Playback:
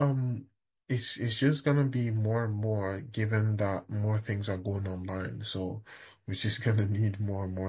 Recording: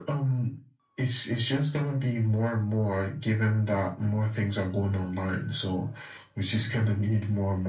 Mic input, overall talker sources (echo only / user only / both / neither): echo only